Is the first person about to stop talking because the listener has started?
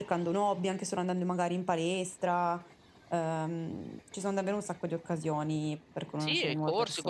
Yes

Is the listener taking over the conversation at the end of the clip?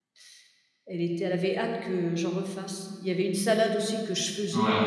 No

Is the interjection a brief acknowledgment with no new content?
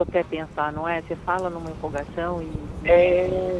No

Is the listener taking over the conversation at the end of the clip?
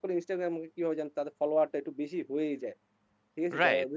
Yes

